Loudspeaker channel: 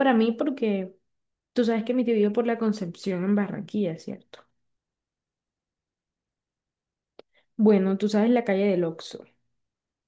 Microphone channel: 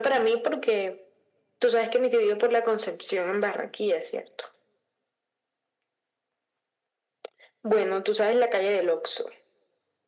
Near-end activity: none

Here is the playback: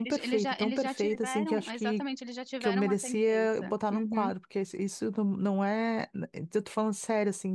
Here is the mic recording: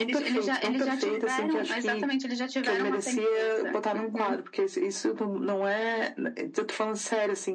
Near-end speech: none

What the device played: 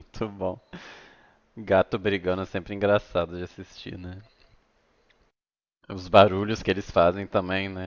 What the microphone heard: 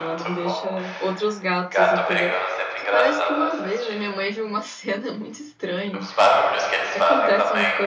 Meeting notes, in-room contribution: present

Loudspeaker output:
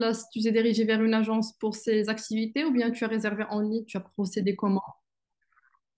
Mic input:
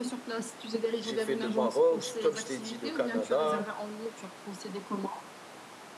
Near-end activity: present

